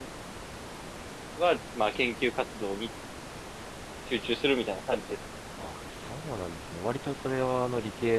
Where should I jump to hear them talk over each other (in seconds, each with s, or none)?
none